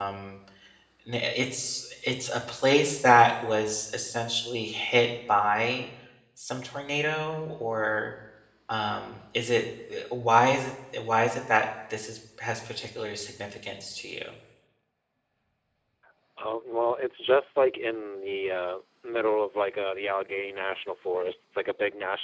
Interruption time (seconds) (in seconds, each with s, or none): none